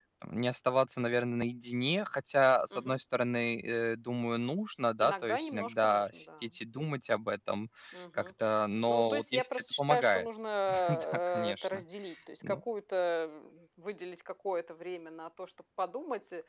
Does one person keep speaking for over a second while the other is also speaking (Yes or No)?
Yes